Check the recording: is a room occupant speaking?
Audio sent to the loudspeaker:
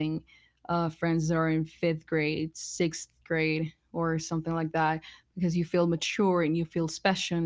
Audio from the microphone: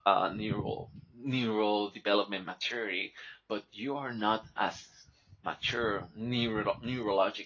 Yes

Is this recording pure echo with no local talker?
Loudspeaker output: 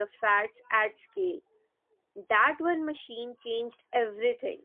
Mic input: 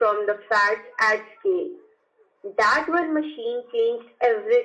Yes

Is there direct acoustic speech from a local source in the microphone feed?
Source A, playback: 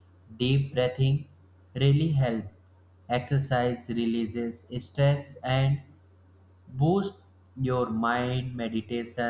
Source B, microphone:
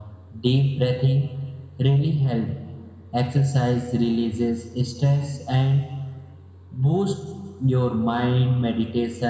No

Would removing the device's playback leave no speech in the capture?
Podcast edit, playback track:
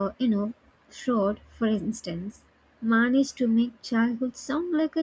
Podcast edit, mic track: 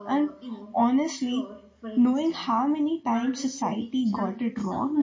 No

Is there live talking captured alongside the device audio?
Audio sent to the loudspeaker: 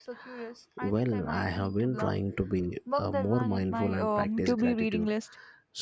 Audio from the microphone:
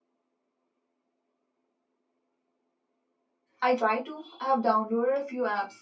Yes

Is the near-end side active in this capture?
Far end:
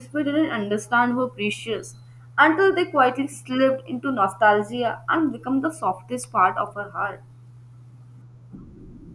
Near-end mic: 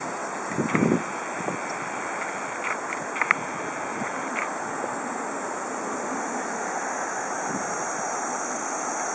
No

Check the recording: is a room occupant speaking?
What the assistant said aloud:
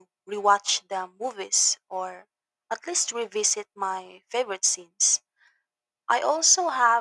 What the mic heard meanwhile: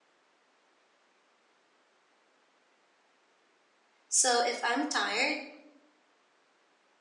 Yes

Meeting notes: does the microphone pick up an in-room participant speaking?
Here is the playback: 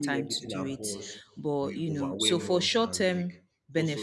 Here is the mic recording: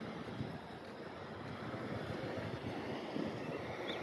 No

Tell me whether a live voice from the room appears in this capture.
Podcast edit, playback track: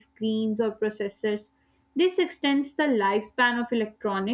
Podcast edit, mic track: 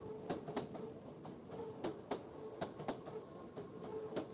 No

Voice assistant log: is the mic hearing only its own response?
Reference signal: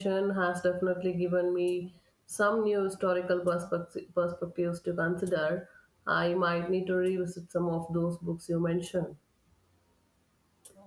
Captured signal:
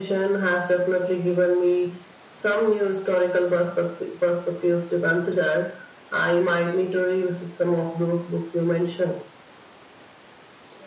Yes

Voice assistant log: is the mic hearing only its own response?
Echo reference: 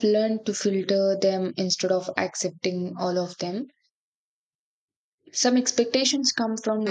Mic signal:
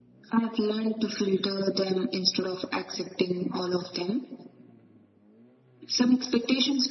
Yes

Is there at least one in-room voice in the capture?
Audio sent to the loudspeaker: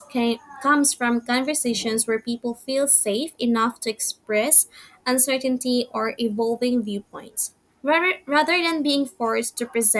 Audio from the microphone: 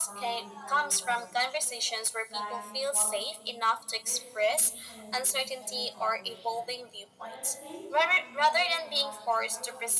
Yes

